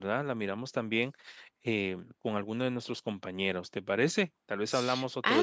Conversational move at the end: taking over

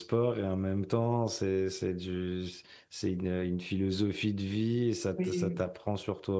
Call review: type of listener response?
listening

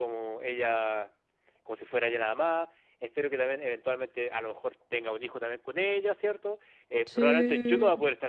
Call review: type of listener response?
listening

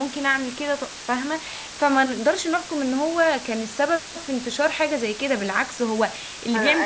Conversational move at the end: taking over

